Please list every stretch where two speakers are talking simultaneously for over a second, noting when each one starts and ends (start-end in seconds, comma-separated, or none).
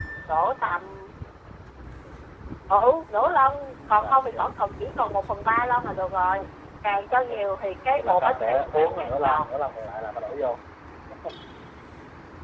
8.0-9.4